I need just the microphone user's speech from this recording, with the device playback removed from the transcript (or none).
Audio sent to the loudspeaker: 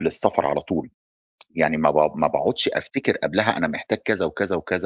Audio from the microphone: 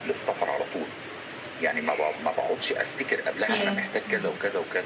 ياه! إمم،